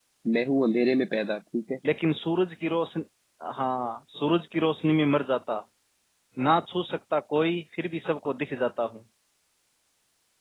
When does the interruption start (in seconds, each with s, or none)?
none